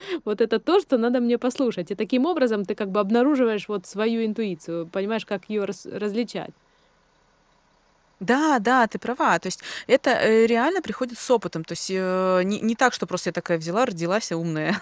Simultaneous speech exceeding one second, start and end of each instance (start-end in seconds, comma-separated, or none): none